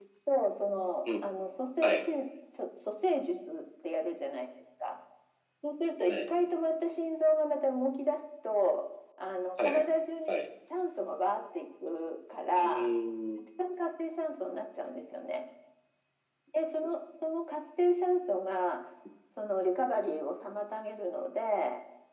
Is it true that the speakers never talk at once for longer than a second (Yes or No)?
Yes